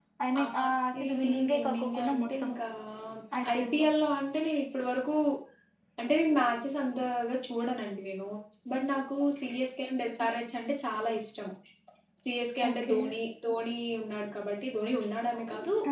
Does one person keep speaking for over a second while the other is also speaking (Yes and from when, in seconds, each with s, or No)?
Yes, from 0.6 s